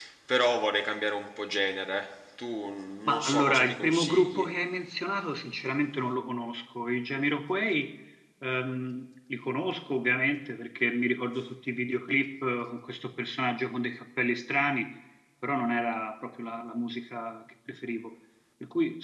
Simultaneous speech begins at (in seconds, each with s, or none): 3.1 s